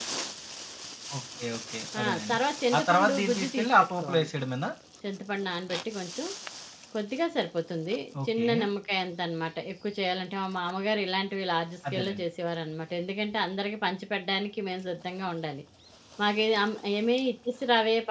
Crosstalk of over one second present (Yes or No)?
Yes